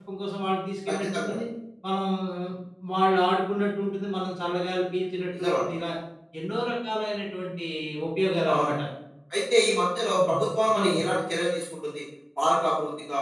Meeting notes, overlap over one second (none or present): none